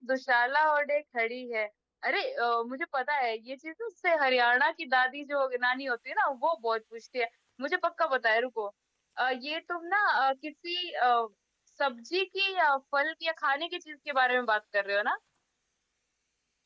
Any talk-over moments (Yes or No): No